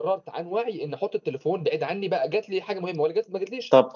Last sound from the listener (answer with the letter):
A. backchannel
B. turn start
B